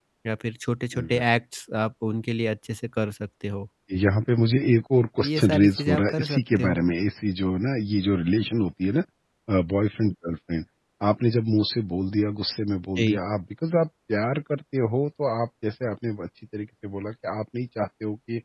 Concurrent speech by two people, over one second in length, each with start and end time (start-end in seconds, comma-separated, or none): 5.2-6.8